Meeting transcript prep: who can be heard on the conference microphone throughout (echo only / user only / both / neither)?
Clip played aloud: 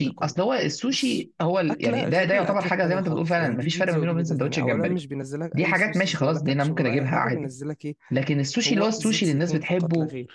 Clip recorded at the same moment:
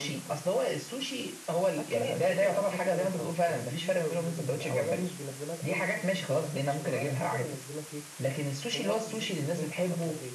echo only